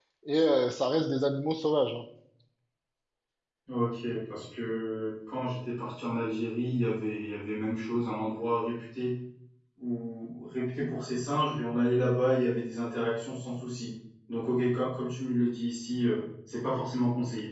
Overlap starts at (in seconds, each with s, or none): none